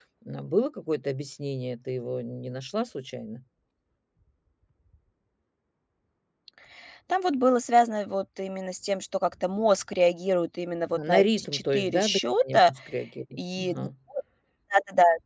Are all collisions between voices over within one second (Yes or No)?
No